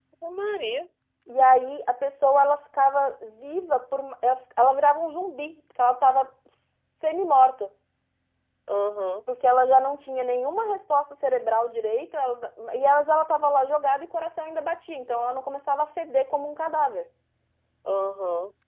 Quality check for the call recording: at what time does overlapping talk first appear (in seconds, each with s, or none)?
none